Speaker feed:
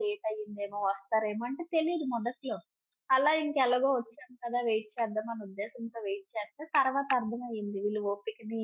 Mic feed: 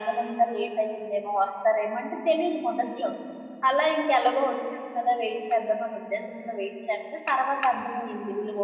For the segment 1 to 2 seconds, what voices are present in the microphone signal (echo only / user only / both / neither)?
echo only